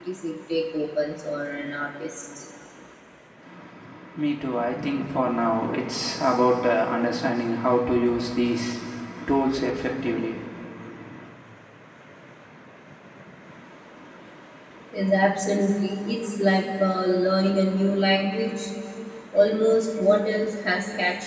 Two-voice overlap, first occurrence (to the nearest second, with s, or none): none